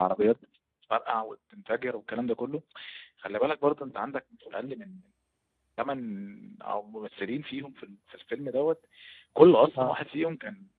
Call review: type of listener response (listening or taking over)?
listening